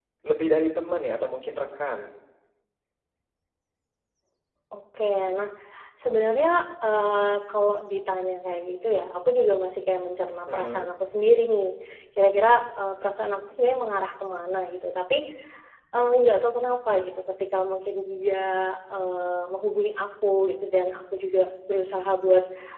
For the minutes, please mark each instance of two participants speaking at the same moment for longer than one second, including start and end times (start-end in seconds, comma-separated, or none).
none